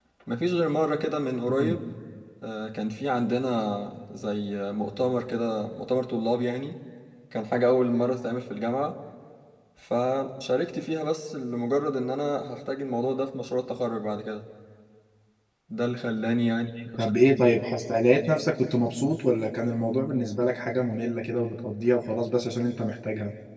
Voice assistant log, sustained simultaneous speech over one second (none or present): none